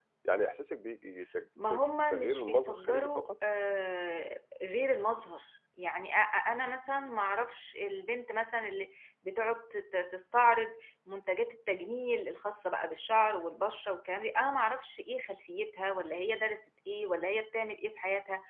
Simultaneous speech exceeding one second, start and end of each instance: 1.7-3.3

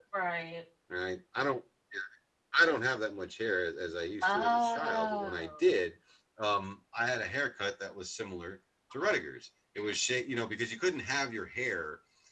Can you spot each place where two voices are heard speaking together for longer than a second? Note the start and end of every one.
4.2-5.5

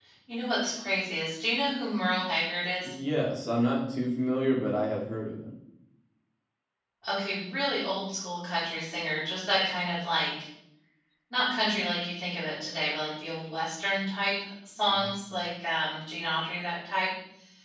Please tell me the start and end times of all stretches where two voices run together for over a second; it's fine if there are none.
none

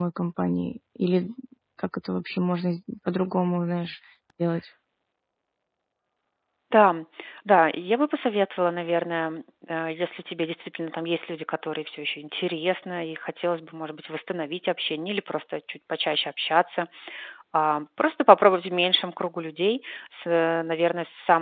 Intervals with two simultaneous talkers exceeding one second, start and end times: none

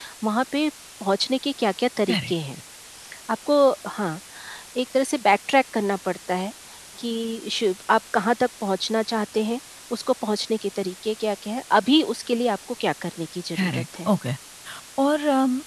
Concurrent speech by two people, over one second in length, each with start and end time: none

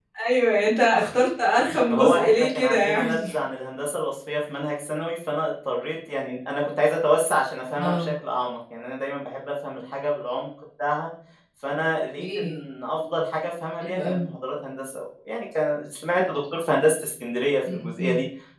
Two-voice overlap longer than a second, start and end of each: 1.9-3.2

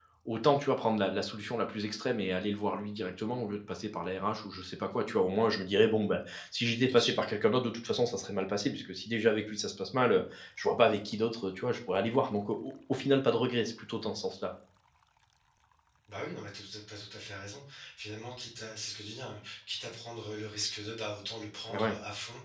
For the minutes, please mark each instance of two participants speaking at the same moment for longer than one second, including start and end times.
none

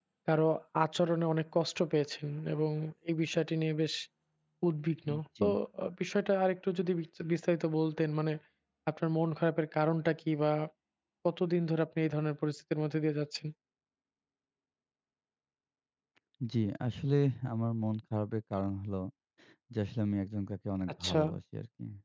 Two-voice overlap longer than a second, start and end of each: none

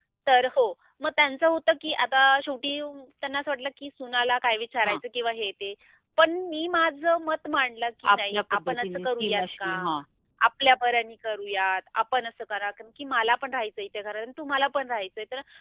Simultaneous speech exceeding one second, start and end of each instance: 8.1-9.7

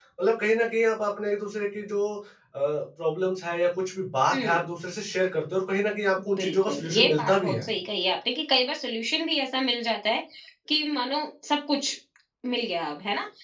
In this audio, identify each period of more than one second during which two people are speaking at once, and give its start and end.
6.4-7.7

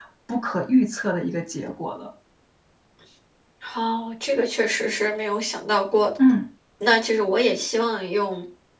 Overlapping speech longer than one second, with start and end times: none

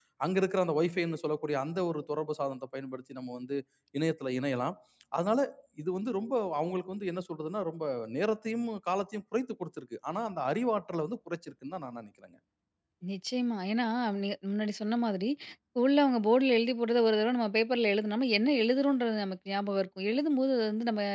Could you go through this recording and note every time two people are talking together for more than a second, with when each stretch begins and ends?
none

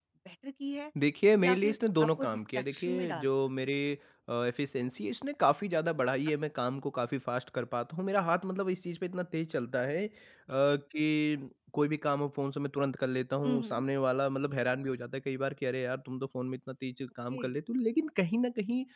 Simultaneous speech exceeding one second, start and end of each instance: 1.4-3.3

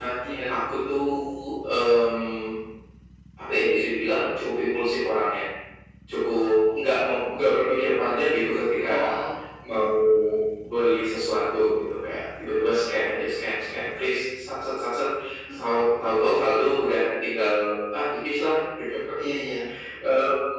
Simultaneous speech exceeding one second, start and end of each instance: none

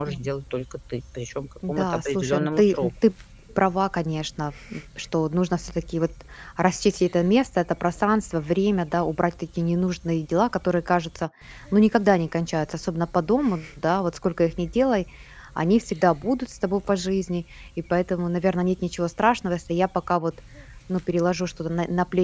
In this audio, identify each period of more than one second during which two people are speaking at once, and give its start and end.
1.7-2.9

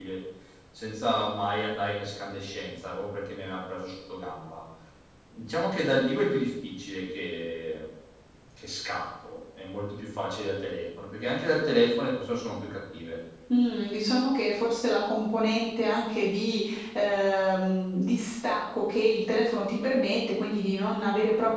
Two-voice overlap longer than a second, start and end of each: none

